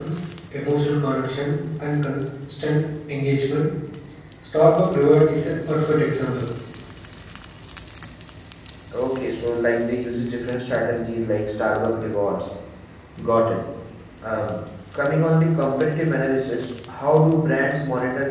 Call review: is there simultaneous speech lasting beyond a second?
No

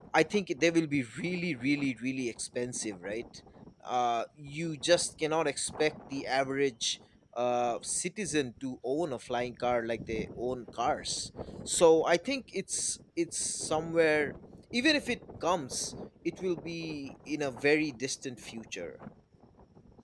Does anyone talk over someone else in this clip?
No

